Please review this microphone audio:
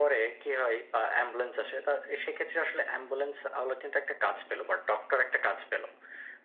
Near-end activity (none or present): none